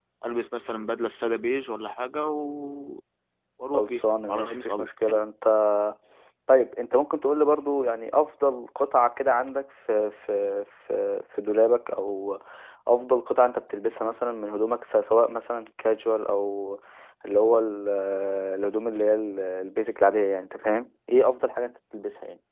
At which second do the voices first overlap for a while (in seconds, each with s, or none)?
3.7 s